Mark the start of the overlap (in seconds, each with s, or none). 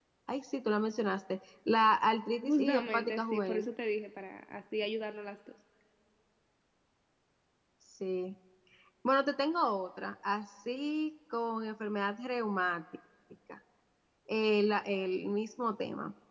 2.4 s